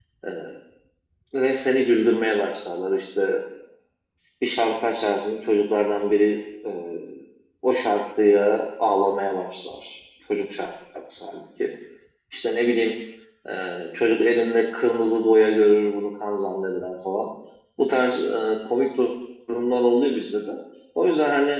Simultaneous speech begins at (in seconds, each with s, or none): none